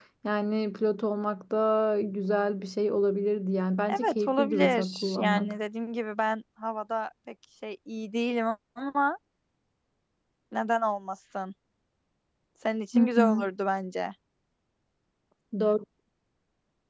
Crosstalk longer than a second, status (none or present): present